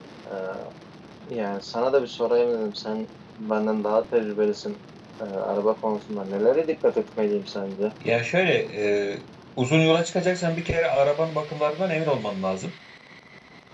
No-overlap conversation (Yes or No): Yes